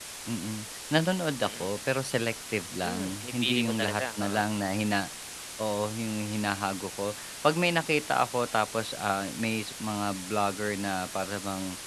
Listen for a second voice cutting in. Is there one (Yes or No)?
Yes